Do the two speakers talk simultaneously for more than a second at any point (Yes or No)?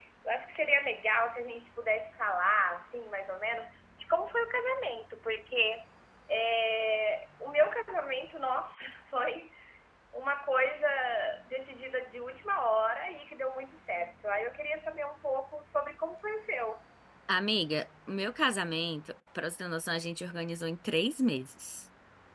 No